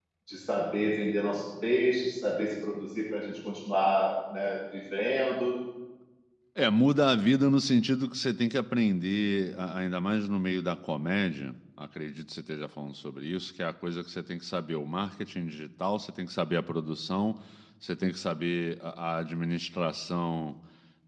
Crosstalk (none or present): none